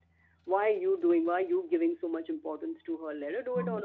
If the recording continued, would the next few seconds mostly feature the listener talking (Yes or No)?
No